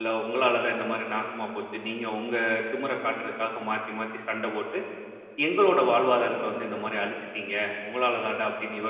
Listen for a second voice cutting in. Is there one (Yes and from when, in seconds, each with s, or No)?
No